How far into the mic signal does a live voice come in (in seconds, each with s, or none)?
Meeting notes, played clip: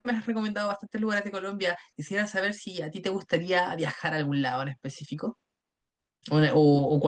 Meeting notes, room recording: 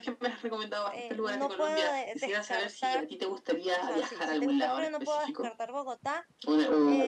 0.9 s